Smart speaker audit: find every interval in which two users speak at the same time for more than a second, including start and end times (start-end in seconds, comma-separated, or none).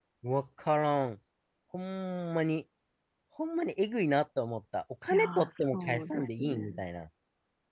5.1-6.8